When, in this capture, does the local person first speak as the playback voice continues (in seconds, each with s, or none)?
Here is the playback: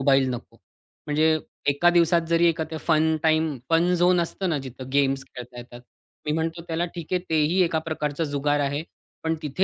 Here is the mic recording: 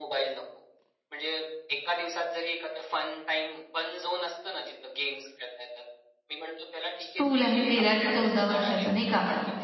7.0 s